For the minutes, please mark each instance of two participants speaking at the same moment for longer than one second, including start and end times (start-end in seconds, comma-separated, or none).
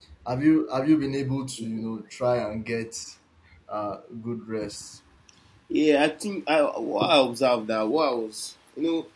none